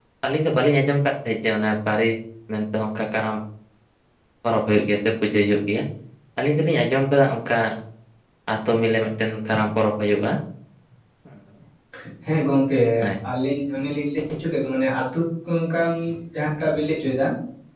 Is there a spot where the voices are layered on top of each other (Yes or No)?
No